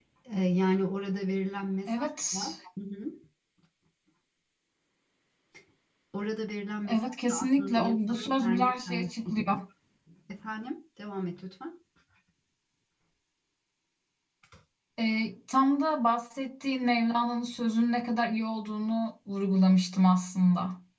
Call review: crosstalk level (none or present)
present